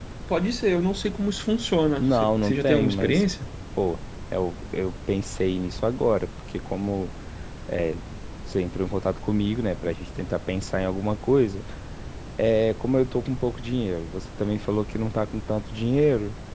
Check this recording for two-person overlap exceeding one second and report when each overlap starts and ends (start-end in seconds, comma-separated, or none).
2.0-3.2